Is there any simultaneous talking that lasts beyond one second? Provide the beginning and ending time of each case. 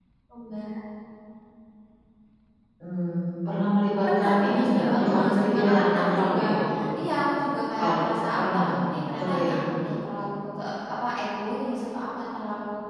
4.2-6.4

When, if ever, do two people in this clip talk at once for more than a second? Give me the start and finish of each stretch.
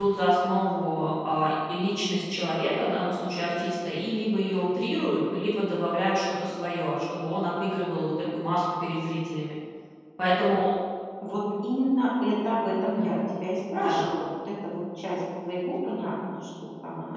none

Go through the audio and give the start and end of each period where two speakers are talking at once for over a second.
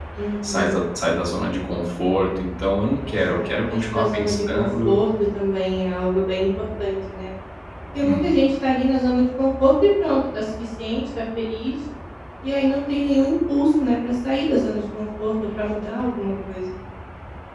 3.0-5.0

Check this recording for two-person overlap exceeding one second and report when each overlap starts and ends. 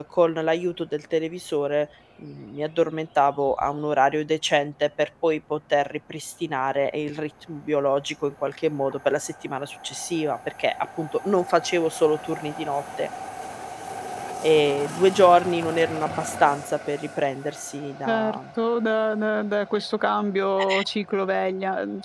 none

